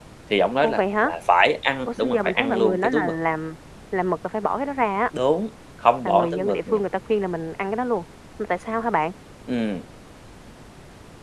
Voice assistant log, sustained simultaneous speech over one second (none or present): present